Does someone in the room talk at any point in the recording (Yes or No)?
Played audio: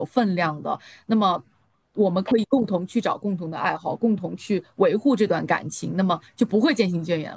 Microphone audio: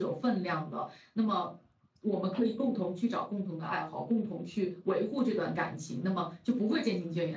No